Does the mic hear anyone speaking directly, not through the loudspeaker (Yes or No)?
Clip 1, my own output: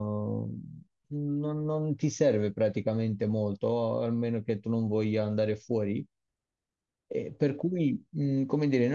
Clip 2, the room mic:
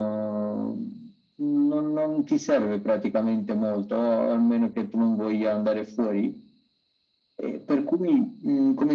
No